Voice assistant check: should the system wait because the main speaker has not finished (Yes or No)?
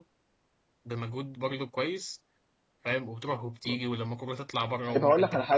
No